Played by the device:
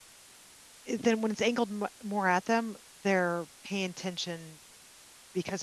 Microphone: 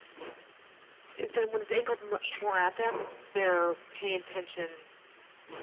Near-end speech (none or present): none